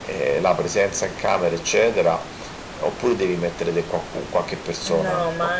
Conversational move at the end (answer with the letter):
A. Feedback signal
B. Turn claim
B